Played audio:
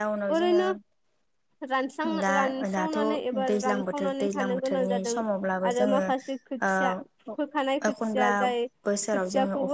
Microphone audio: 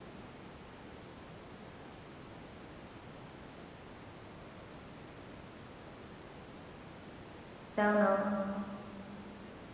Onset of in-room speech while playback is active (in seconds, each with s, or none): 7.8 s